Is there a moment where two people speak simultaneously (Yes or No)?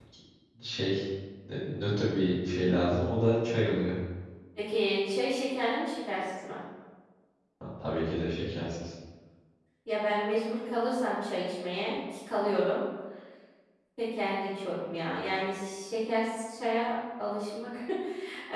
No